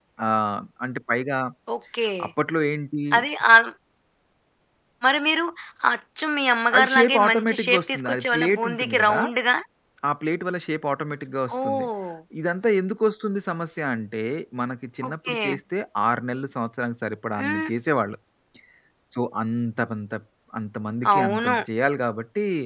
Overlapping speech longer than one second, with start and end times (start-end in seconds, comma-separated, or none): 6.8-9.2